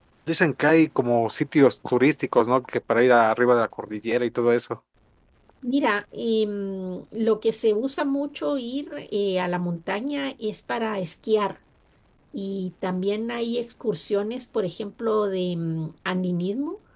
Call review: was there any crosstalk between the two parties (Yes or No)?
No